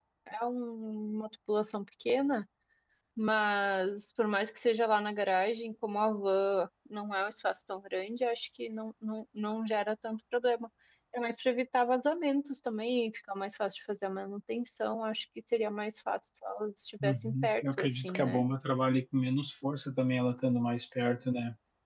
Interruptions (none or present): present